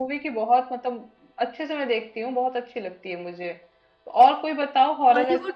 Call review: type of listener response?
listening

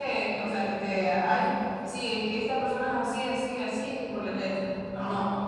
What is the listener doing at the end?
taking over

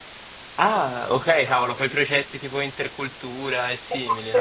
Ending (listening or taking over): taking over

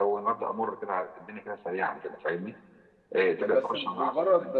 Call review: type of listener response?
taking over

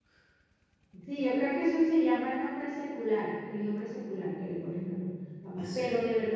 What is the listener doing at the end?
listening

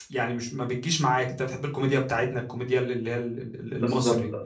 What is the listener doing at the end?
taking over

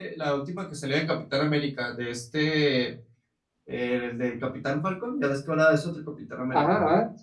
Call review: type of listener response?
taking over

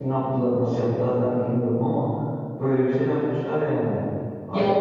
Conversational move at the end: taking over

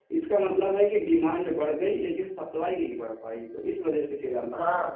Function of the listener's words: taking over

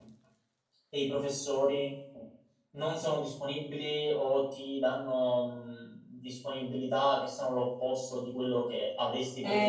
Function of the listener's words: taking over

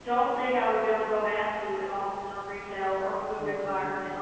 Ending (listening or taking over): listening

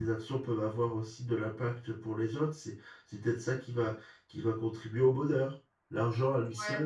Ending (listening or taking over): listening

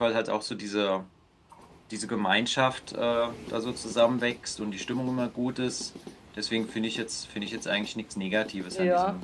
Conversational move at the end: taking over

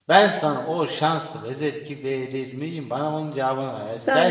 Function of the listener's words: taking over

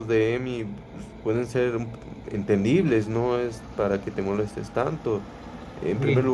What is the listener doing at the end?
listening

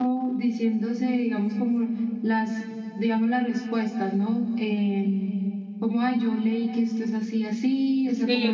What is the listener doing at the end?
taking over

